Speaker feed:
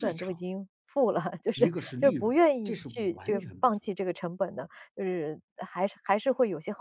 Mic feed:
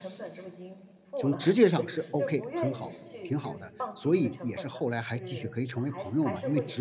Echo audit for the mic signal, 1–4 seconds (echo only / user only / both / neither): both